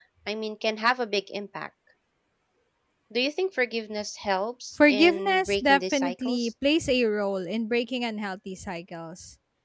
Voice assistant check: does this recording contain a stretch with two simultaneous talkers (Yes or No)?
Yes